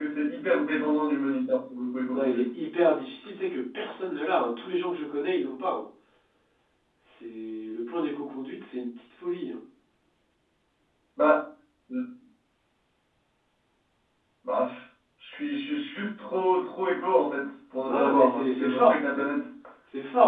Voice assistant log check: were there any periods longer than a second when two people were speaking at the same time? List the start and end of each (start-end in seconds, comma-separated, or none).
17.9-19.2